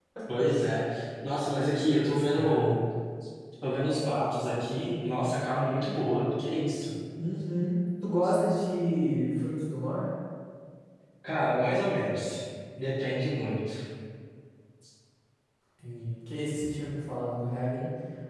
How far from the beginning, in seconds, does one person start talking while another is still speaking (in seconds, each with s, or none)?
1.5 s